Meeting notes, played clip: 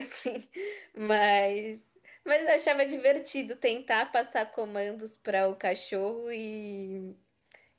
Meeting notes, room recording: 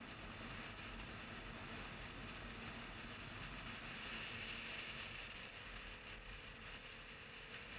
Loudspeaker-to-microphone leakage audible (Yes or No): No